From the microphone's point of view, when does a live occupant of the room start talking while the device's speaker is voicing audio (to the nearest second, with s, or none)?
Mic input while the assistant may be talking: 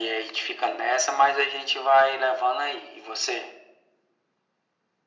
none